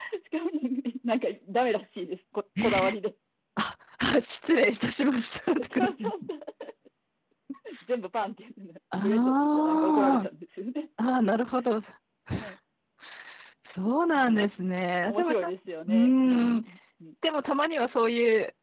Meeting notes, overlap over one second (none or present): present